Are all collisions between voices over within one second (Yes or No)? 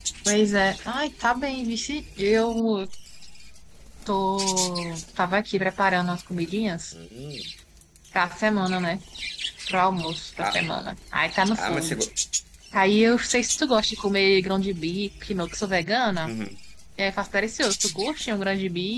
Yes